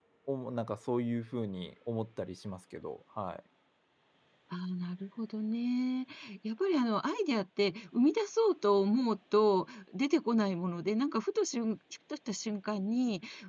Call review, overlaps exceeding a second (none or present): none